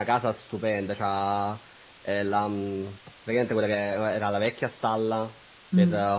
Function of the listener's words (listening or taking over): listening